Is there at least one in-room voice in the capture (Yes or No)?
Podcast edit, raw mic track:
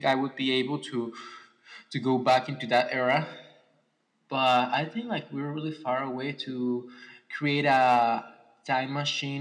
No